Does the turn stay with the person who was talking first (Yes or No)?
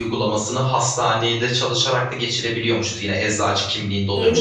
Yes